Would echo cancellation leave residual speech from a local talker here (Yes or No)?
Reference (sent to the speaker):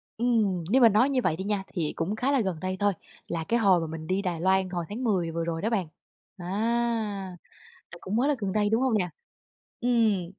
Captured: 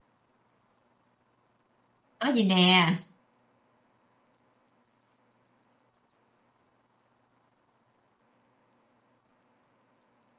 Yes